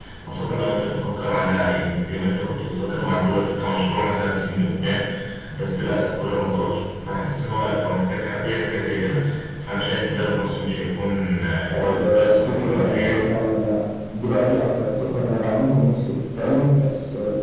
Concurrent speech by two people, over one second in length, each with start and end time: 11.7-13.2

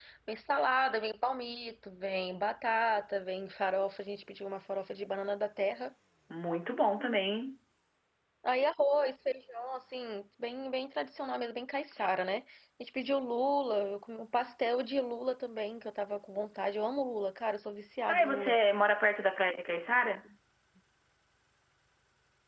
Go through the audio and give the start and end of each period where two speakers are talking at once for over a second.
none

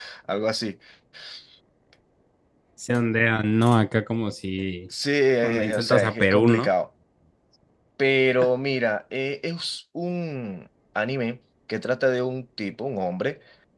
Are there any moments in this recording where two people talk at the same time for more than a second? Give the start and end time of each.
5.4-6.7

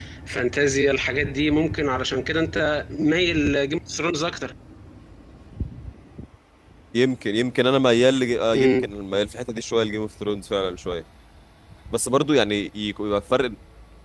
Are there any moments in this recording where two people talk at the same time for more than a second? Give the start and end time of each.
none

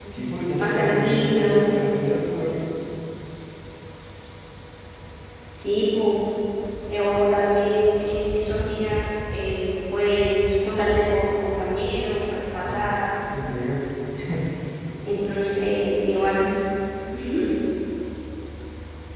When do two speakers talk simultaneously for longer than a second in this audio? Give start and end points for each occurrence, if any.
0.6-1.8

